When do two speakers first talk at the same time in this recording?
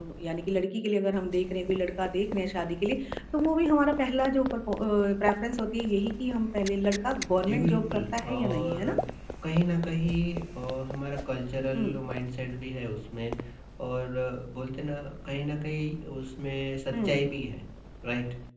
7.5 s

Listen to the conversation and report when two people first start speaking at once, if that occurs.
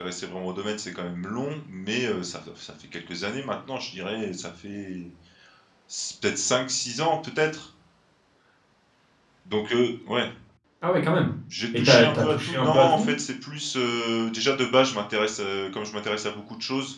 11.8 s

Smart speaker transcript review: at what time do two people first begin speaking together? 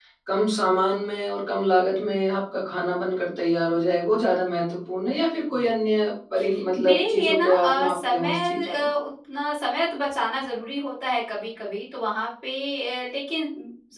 6.8 s

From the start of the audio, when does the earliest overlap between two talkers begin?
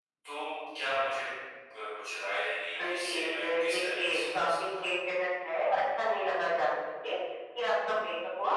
2.8 s

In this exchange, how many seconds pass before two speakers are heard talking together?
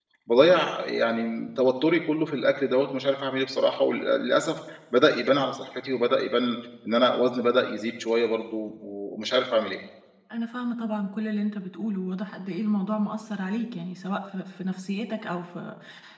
none

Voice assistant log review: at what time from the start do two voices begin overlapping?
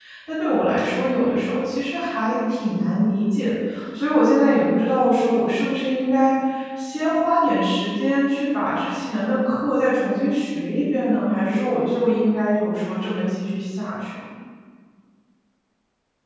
none

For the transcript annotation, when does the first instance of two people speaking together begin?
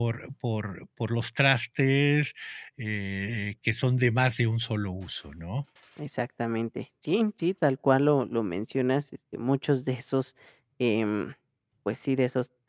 none

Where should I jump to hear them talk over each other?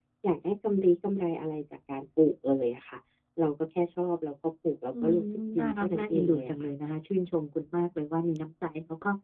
4.9 s

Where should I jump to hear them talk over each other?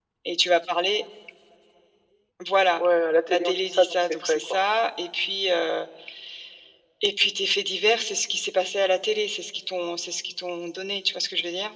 3.3 s

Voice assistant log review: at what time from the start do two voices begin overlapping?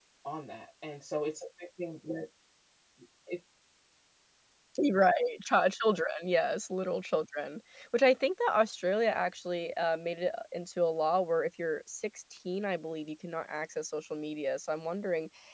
none

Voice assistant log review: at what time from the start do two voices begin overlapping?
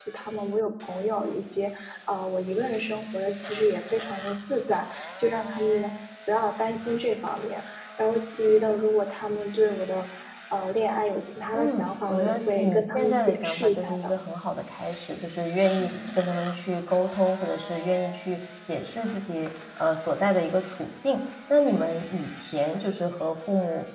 11.5 s

